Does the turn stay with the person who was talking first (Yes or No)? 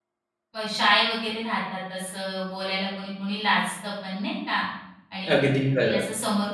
Yes